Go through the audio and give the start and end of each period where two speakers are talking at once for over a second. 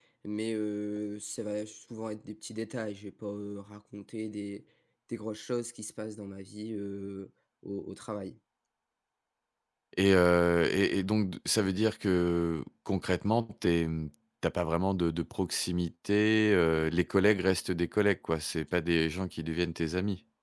none

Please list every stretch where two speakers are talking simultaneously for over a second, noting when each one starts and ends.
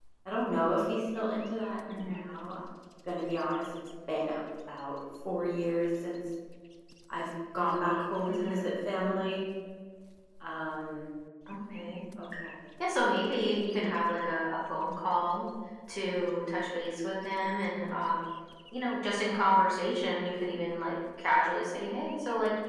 none

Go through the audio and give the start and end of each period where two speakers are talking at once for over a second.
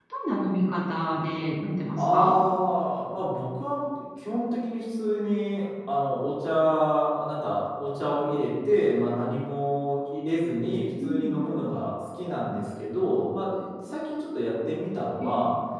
none

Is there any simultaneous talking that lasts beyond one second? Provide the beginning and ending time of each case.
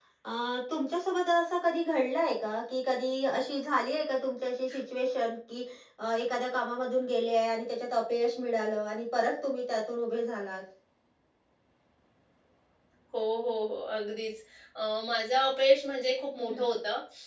none

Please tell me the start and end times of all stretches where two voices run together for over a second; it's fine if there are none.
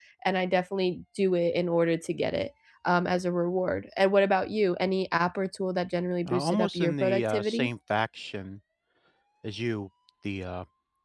6.3-7.7

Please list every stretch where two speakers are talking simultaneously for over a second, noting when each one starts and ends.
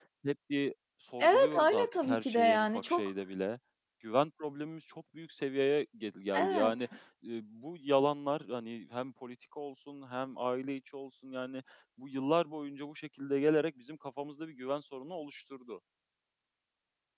1.2-3.1

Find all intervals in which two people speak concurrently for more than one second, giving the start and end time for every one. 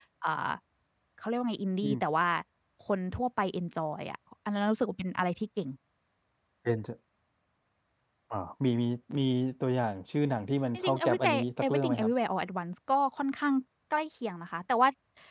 10.7-12.1

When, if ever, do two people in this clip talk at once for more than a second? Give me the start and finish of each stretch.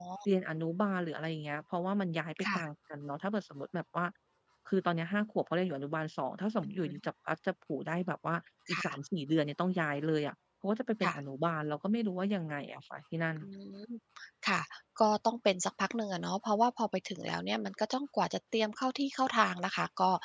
none

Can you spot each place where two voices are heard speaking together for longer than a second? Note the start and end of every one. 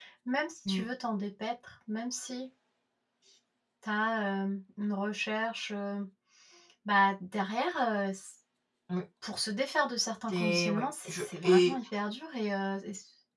10.3-11.8

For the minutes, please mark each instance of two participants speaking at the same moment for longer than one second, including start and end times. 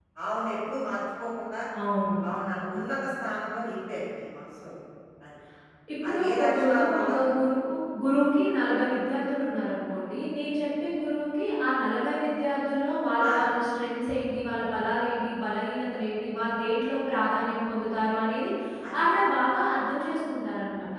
6.1-7.3

